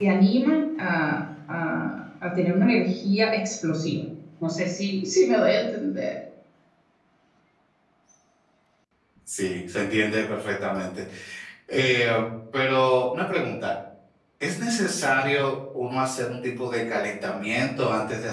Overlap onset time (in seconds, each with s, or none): none